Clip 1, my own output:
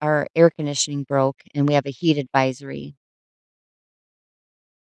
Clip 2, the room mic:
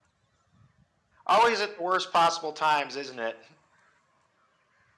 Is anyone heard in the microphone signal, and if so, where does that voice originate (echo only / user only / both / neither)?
user only